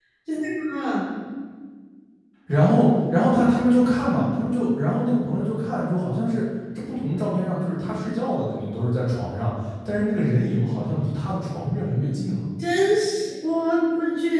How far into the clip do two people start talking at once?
none

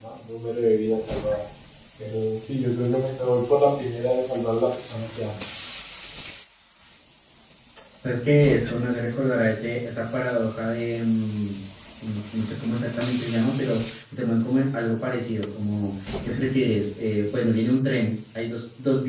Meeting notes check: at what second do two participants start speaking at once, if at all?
none

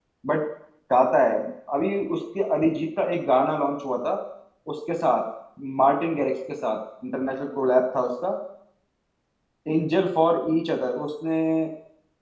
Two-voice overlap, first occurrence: none

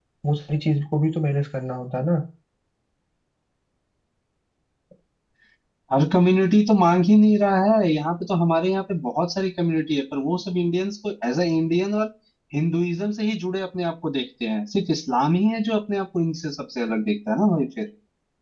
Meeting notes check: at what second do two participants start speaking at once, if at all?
none

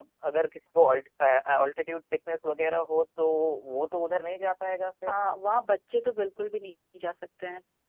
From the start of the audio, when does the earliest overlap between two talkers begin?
none

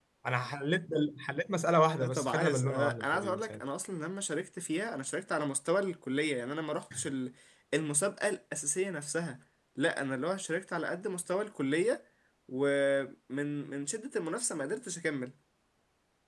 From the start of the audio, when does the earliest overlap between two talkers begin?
2.0 s

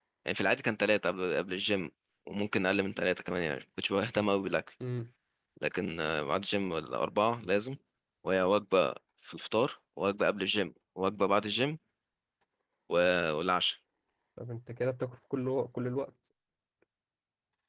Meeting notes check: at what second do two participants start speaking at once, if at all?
none

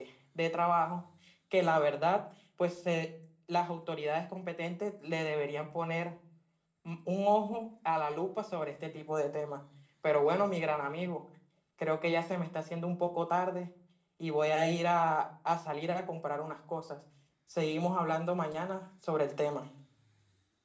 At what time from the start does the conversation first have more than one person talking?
none

